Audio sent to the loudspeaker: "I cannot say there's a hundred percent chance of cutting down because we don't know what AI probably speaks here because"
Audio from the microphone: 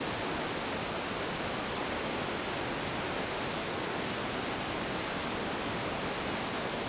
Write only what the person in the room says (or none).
none